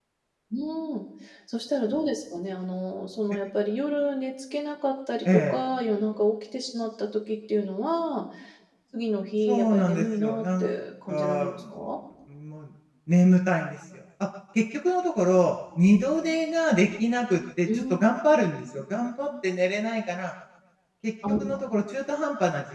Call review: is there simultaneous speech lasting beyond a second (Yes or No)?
Yes